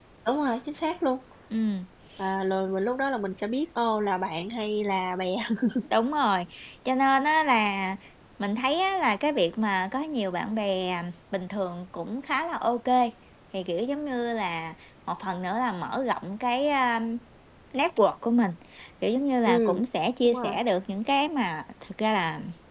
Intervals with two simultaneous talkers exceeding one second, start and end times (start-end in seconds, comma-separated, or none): none